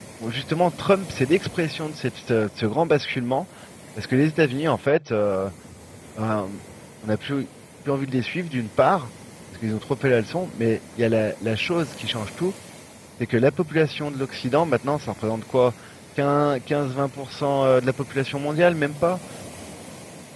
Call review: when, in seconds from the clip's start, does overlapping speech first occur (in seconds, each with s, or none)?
none